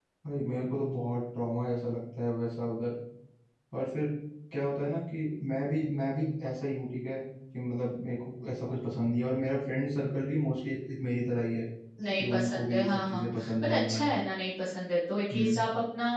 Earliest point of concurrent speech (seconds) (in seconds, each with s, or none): 12.2 s